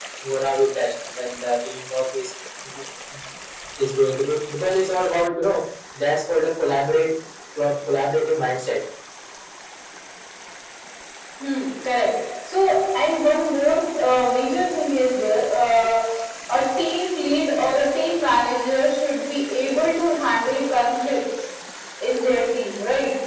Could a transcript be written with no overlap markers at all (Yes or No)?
Yes